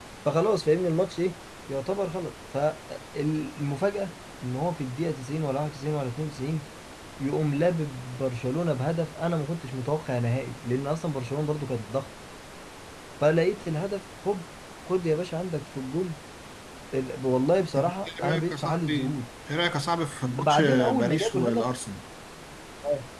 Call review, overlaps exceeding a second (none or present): present